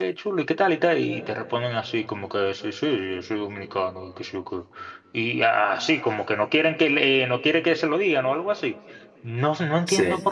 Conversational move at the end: listening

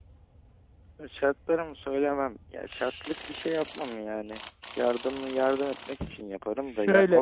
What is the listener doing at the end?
listening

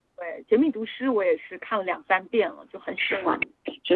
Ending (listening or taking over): taking over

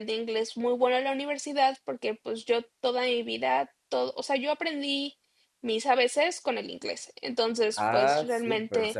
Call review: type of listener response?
taking over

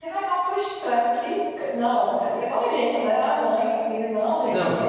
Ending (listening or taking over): taking over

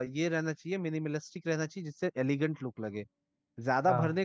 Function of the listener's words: listening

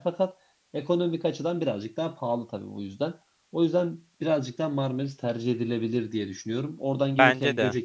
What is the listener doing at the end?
listening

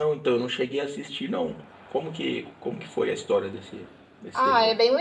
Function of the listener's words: taking over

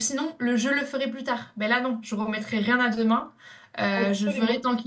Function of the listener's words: listening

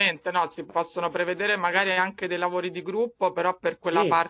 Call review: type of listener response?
listening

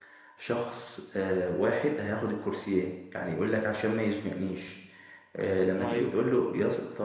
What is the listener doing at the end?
listening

